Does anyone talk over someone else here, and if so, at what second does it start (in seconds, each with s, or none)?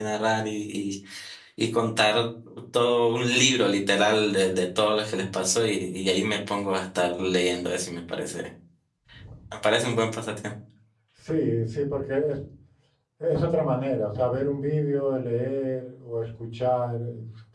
none